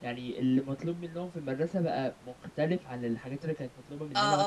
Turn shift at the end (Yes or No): Yes